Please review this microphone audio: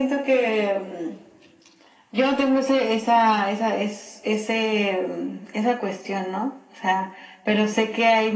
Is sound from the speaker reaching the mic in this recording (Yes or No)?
Yes